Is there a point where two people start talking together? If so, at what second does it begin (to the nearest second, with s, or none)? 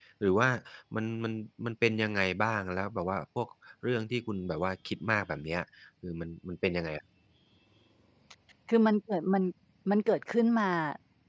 none